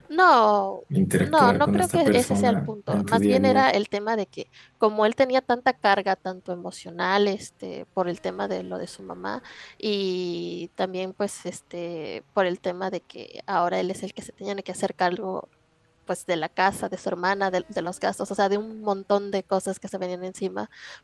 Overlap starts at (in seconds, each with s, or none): 1.2 s